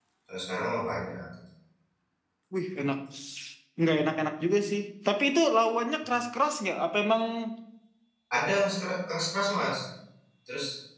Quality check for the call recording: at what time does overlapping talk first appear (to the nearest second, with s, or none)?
none